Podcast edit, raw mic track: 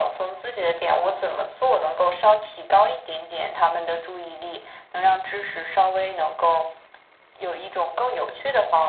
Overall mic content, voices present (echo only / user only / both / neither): echo only